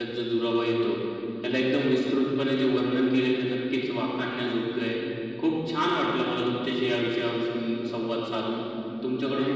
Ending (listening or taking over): listening